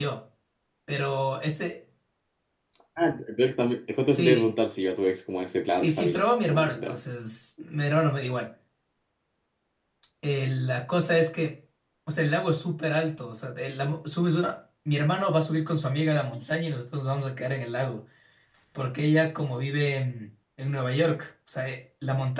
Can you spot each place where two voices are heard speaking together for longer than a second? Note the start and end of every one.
5.7-7.0

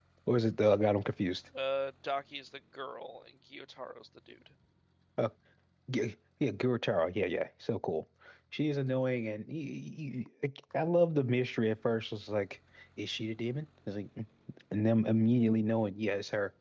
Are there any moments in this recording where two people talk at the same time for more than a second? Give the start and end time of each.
none

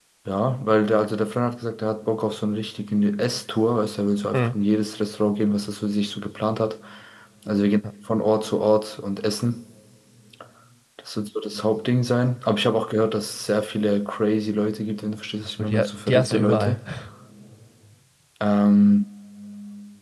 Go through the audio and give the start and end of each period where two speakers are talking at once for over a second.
15.6-16.8

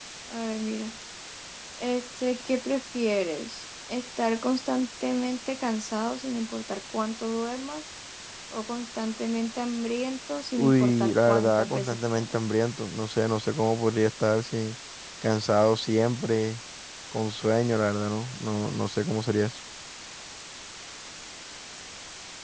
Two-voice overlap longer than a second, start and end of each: 10.6-12.3

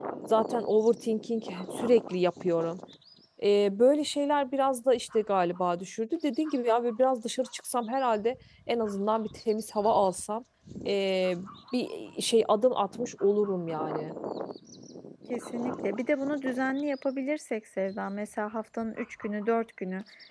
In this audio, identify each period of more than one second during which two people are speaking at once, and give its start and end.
none

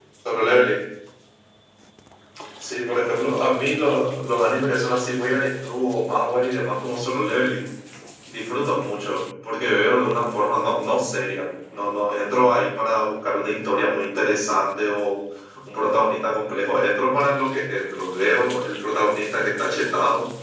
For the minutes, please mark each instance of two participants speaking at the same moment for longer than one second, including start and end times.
none

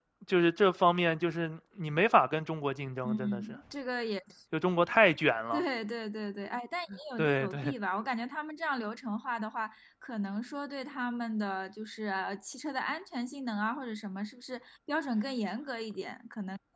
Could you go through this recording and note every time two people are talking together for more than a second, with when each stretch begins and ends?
none

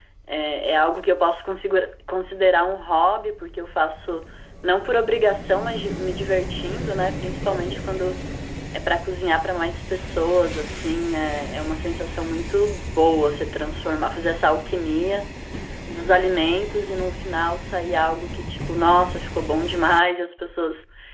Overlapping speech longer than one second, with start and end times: none

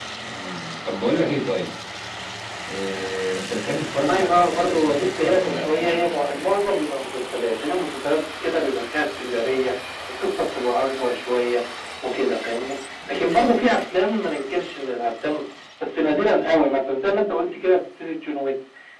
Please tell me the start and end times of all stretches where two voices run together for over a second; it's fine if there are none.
3.9-6.1

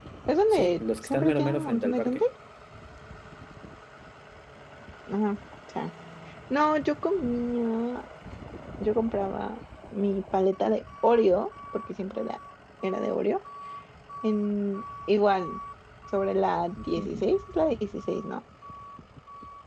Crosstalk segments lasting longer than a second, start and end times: 0.5-2.2

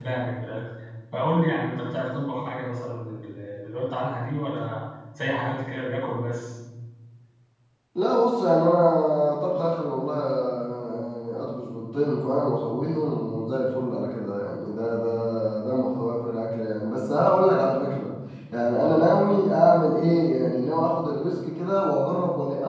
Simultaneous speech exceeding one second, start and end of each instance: none

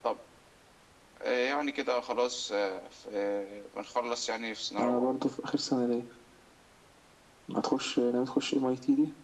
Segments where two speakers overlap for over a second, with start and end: none

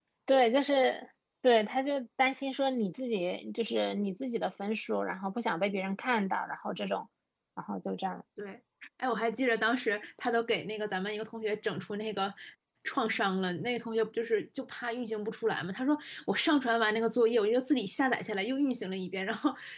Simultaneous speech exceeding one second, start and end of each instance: none

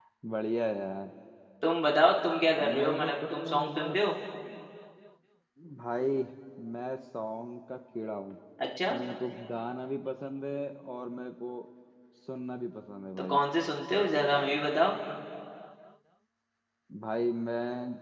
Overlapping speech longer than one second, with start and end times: 2.8-4.0

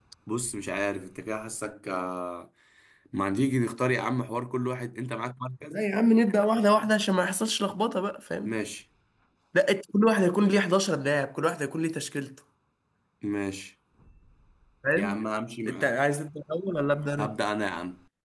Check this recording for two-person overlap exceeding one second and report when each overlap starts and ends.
none

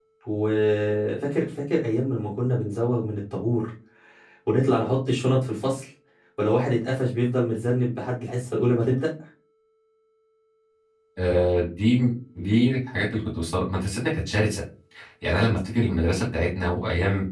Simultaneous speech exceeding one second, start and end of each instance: none

